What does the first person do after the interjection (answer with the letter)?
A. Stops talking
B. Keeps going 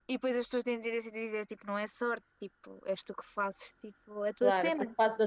A